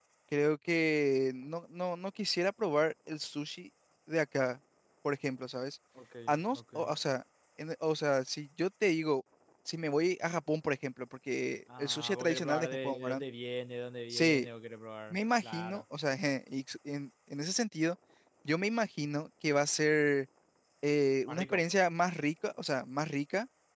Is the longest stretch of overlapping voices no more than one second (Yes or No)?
No